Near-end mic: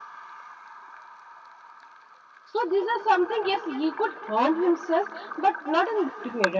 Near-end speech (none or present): present